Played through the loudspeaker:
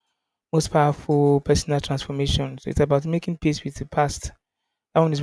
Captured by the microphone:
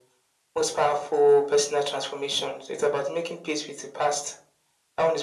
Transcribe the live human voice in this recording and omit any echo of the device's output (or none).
none